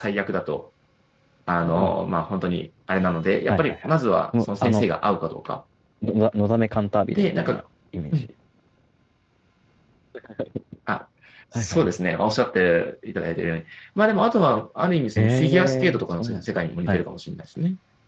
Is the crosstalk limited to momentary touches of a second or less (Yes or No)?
No